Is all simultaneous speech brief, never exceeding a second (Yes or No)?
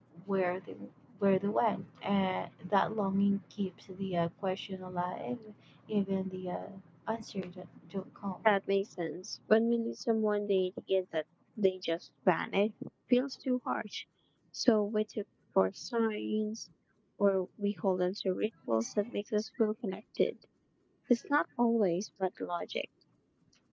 Yes